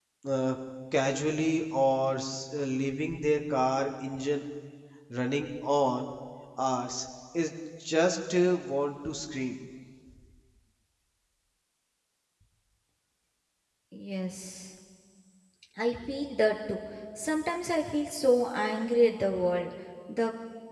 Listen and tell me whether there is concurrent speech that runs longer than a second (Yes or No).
No